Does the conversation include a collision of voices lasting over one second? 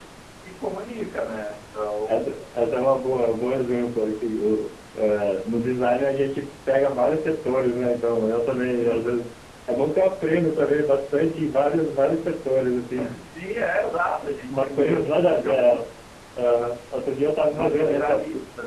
Yes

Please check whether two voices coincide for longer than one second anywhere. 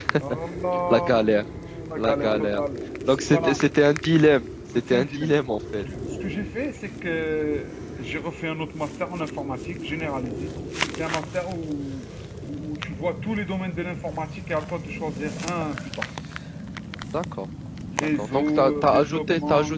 Yes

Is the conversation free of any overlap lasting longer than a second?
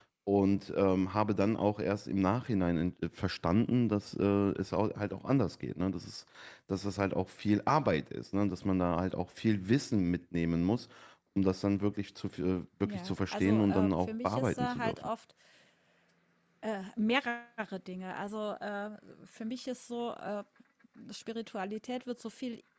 No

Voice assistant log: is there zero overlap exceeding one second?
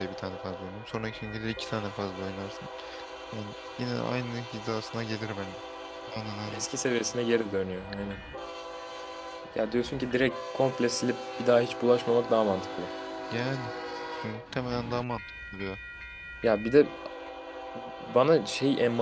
Yes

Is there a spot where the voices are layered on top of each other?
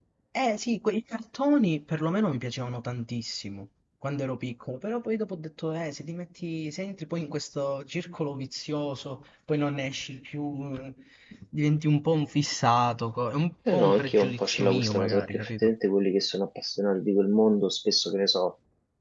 Yes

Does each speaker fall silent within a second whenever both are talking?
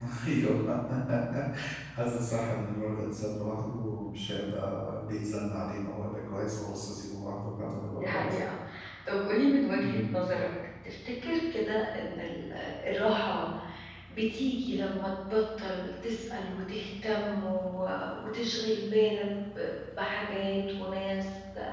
Yes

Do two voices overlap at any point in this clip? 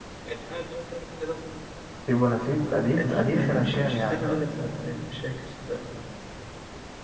Yes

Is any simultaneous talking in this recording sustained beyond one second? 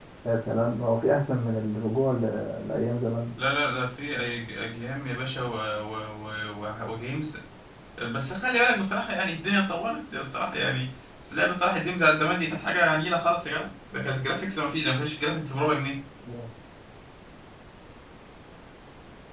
No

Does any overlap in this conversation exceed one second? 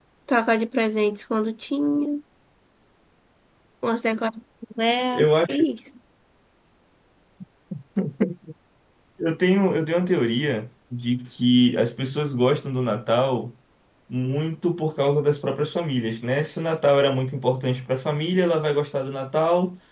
No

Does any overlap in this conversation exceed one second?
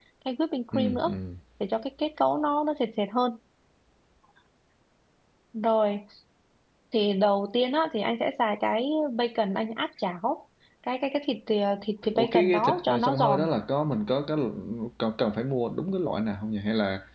Yes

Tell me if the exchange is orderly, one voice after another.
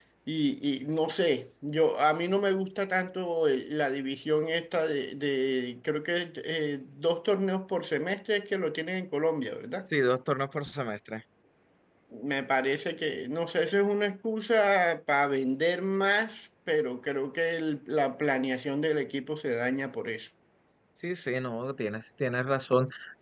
Yes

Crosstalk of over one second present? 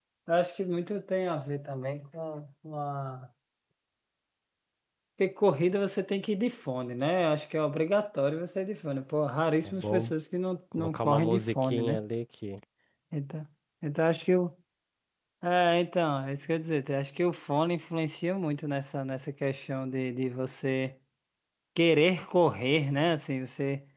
Yes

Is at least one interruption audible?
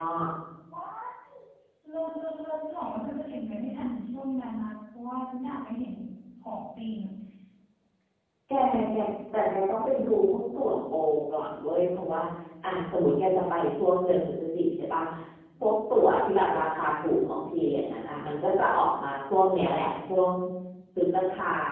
No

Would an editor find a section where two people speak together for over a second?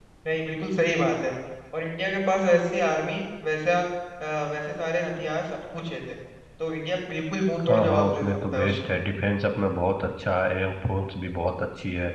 Yes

